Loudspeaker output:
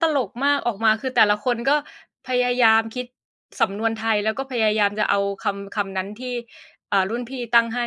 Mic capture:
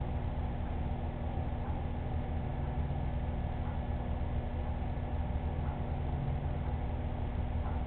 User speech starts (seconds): none

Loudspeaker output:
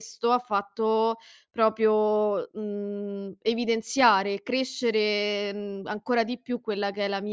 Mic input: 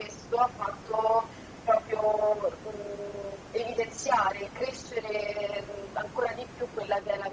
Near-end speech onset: none

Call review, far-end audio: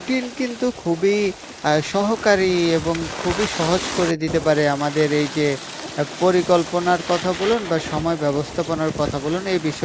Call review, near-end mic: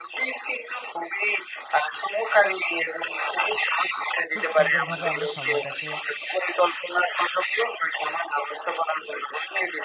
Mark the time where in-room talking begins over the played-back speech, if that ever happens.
4.3 s

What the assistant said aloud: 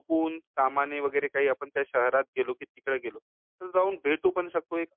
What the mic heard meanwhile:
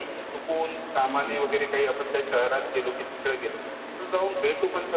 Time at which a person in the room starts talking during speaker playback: 1.0 s

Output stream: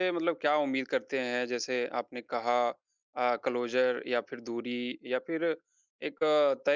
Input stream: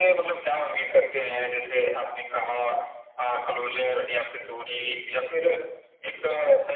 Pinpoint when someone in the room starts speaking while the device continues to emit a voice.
none

